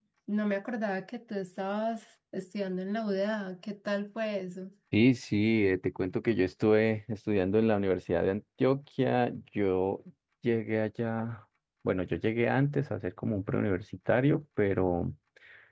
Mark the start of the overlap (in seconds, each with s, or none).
none